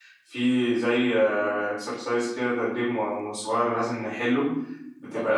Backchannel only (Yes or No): No